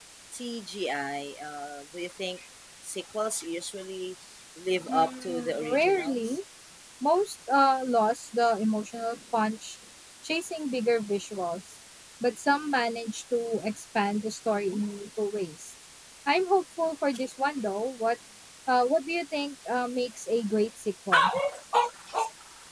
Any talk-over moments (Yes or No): Yes